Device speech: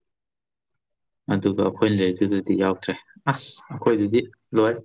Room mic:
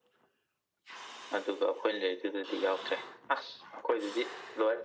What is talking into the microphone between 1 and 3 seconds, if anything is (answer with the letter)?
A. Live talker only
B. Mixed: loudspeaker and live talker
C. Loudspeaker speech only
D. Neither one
C